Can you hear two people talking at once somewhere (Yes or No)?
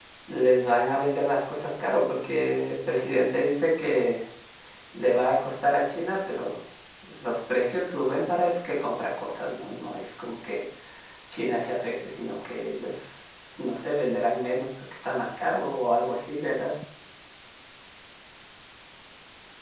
No